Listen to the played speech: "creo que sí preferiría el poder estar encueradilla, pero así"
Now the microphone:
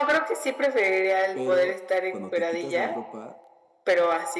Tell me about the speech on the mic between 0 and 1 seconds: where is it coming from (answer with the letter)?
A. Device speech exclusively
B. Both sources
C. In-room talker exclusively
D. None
A